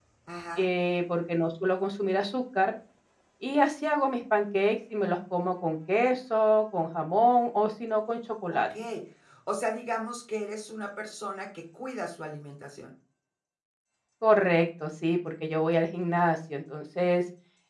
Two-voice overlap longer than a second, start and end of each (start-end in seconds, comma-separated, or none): none